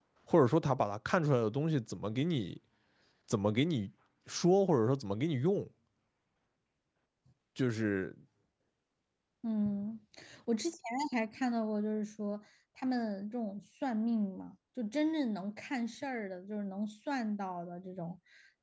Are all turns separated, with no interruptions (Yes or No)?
Yes